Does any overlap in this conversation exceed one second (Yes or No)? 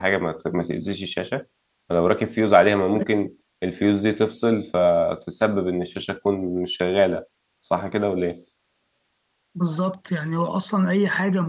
No